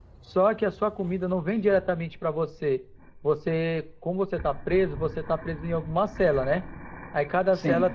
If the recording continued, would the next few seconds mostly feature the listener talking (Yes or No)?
No